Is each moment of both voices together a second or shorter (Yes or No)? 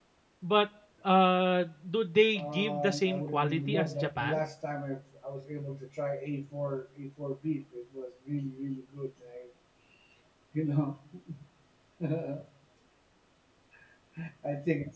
No